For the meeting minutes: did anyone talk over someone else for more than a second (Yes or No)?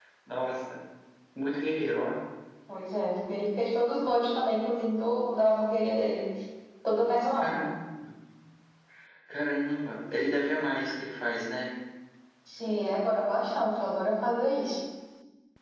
No